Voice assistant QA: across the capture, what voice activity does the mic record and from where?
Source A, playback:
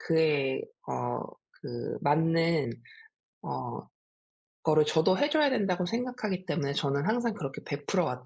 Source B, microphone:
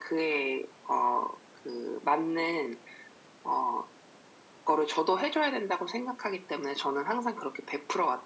echo only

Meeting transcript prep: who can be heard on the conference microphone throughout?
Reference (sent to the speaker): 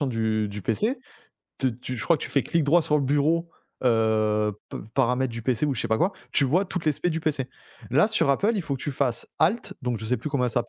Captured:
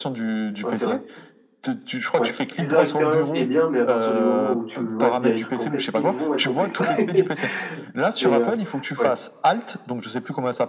both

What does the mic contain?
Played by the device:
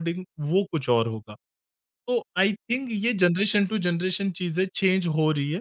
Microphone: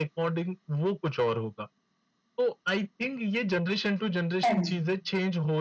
both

